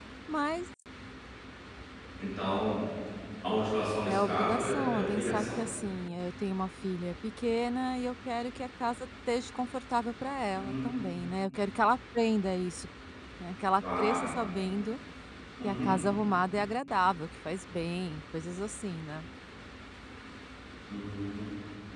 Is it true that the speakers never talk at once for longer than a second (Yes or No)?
No